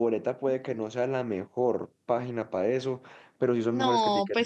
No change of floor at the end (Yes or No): No